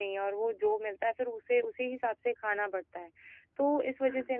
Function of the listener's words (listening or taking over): listening